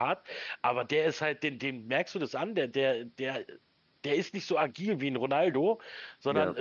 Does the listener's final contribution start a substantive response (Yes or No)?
No